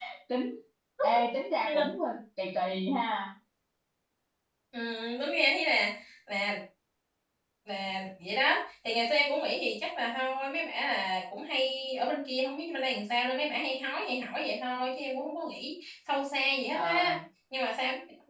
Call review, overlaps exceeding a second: none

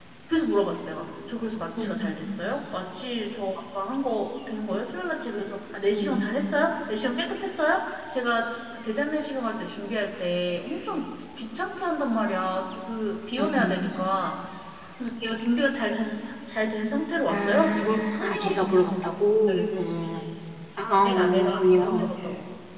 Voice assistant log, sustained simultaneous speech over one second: present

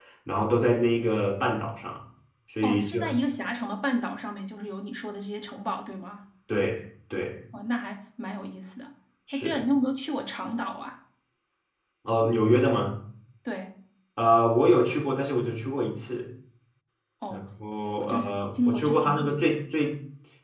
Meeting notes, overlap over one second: present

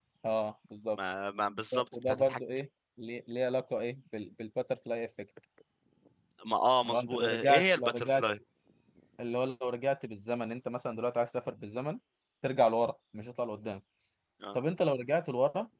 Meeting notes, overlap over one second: present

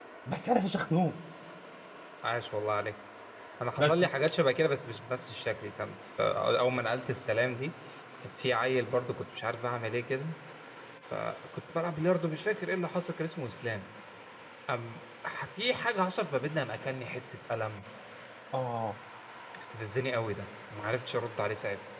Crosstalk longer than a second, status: none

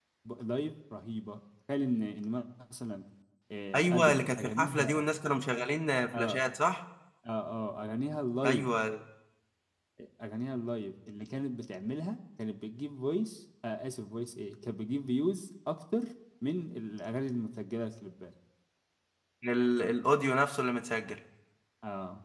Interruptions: present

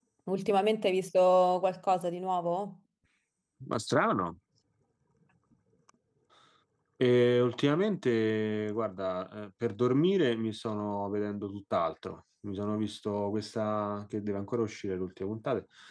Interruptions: none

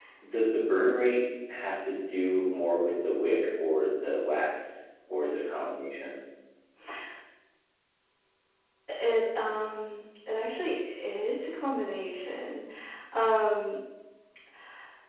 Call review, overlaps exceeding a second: none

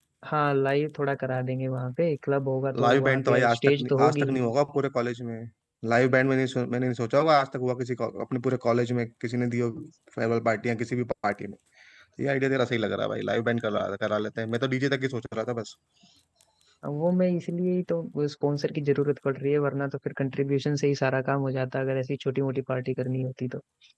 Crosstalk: present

